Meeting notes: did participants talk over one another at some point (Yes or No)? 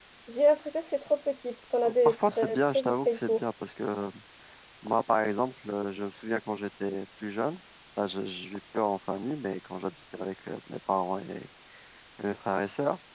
Yes